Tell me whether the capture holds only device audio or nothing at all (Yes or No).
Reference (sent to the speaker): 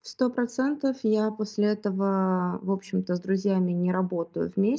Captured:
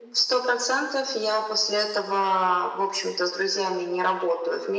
Yes